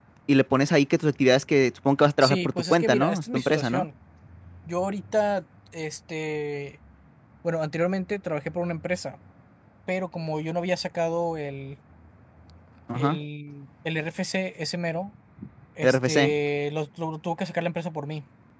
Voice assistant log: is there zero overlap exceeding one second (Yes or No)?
No